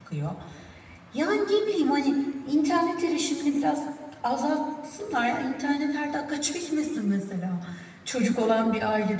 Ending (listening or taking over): listening